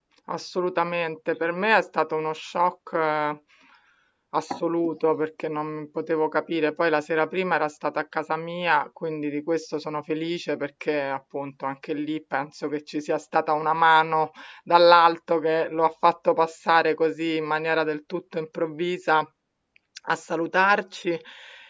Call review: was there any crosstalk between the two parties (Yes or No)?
No